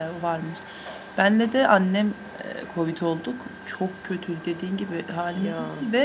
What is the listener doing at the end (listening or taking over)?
listening